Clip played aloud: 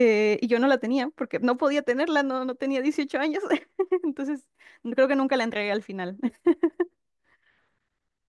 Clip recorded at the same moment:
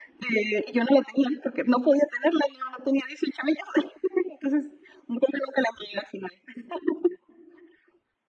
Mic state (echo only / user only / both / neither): echo only